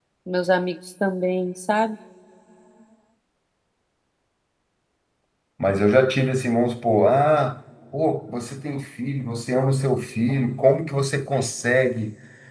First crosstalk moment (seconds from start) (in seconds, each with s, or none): none